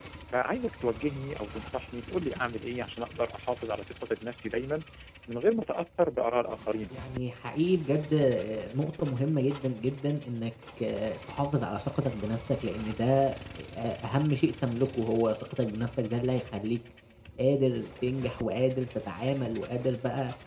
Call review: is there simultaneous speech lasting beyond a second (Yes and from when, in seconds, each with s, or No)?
No